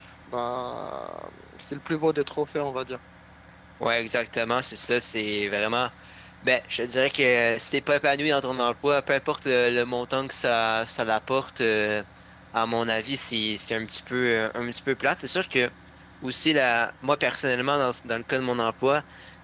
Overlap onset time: none

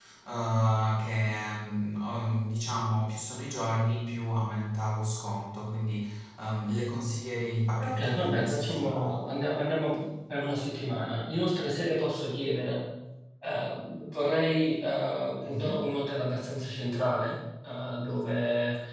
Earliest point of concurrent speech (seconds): 7.8 s

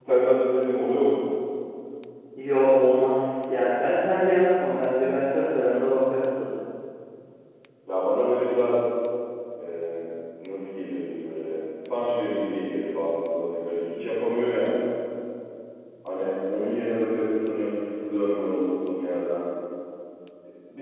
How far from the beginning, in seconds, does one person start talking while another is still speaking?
none

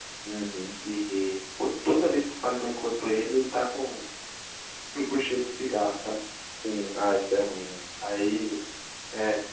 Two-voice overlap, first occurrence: none

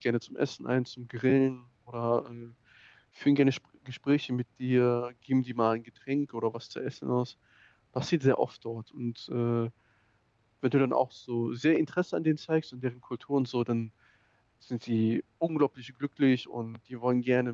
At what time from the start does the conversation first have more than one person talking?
none

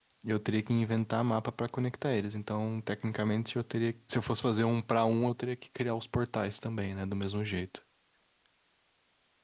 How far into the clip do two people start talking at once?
none

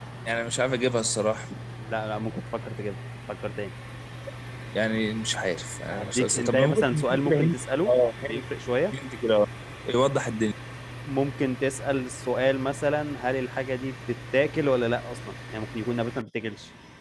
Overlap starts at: 5.9 s

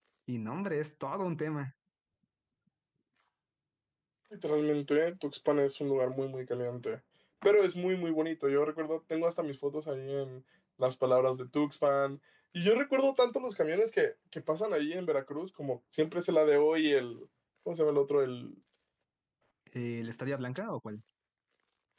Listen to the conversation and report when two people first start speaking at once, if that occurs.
none

